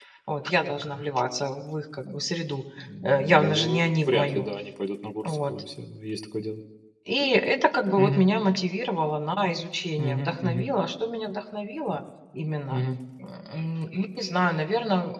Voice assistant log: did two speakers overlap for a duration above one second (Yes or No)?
Yes